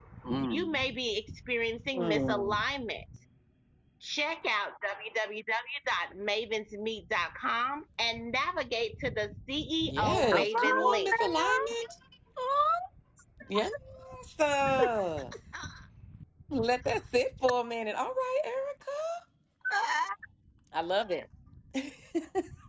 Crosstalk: present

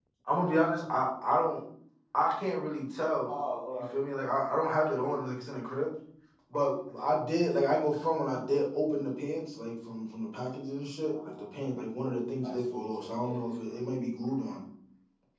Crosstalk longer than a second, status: present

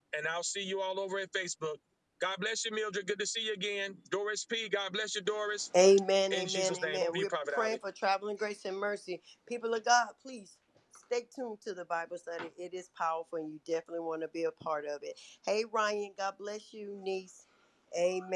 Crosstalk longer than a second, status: present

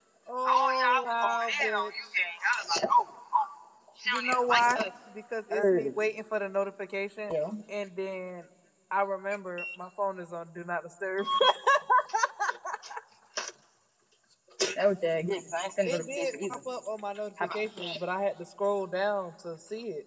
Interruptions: present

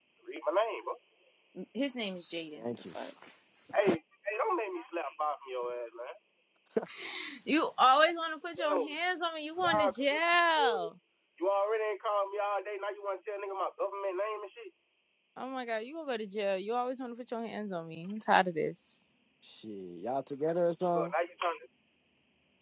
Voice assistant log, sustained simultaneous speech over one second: none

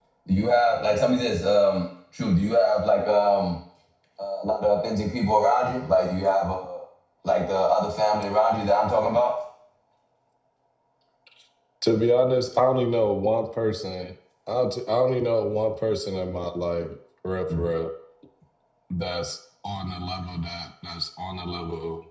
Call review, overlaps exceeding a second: none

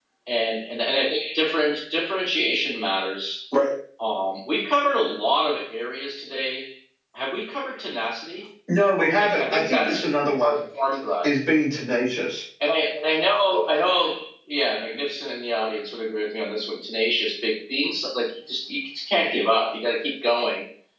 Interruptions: present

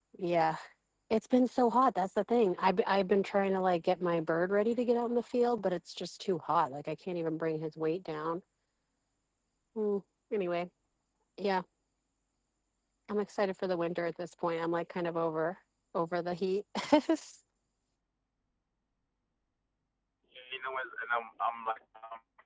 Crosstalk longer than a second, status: none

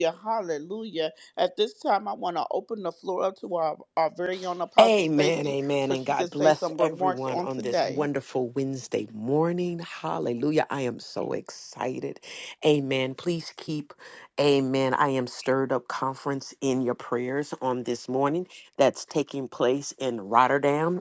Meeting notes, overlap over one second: present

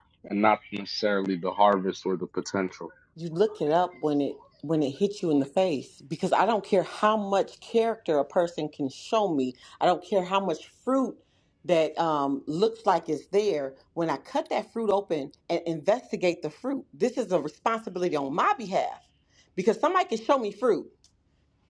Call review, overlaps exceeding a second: none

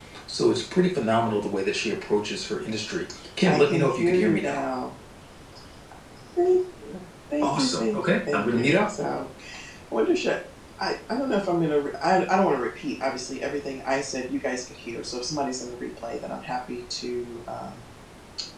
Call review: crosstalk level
present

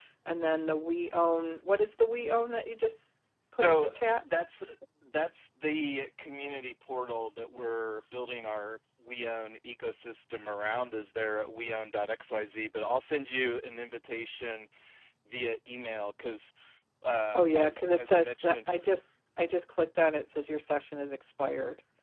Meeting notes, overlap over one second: present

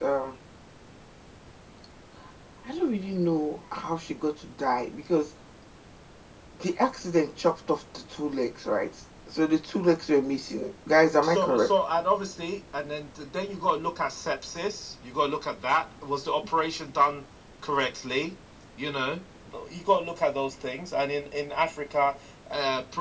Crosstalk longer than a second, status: none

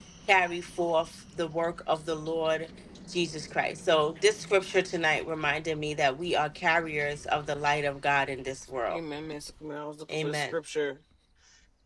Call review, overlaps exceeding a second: none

